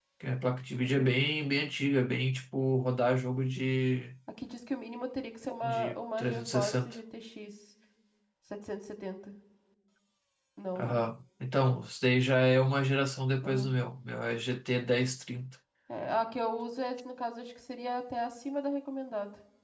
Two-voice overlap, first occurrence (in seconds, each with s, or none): 5.6 s